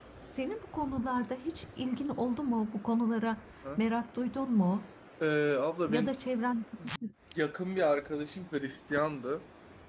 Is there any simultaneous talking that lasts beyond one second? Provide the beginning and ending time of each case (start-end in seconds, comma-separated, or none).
none